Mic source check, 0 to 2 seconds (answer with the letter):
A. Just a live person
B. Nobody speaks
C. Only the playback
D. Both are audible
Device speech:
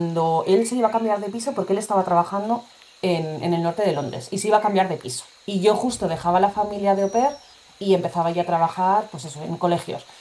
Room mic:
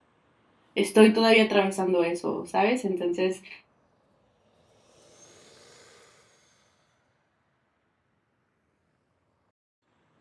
A